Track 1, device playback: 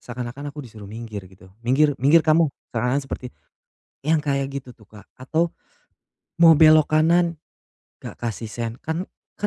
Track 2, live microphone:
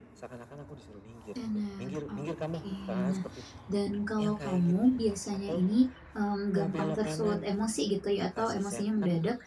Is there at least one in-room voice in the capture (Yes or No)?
Yes